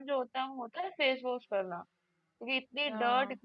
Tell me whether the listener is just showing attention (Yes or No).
Yes